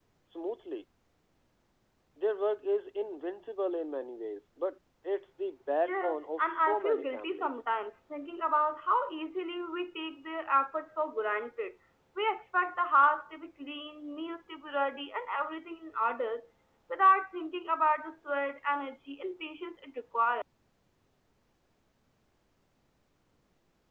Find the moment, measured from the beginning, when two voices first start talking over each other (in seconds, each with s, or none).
5.9 s